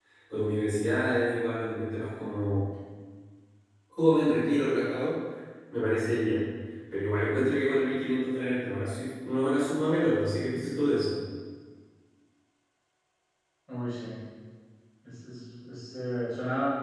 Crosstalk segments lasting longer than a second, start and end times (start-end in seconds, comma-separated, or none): none